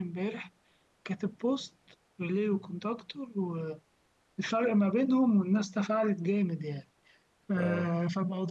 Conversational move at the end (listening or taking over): listening